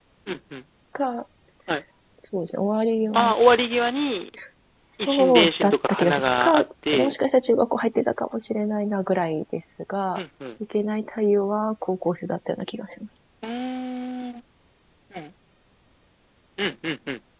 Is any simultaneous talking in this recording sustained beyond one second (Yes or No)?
Yes